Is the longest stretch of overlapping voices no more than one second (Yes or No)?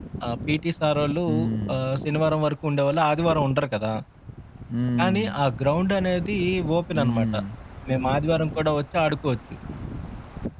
Yes